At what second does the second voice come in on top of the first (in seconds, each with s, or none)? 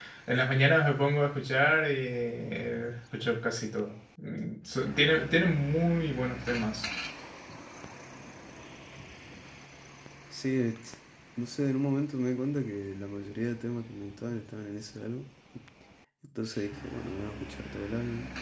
none